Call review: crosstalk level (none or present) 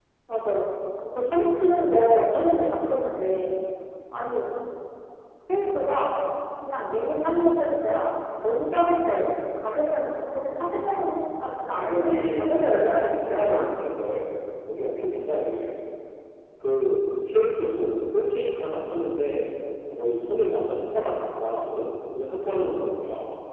present